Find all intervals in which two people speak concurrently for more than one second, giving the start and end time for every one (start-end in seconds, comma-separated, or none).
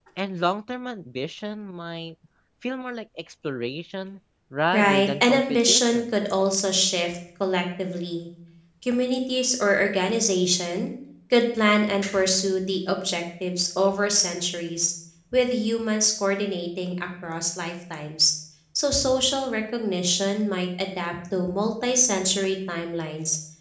4.7-6.2